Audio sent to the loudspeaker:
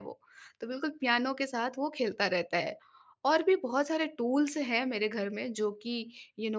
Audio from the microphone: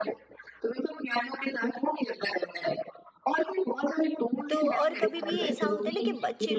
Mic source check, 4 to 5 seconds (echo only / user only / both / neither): both